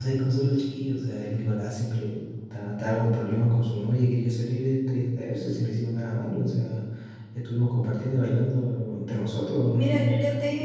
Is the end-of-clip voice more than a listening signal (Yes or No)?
Yes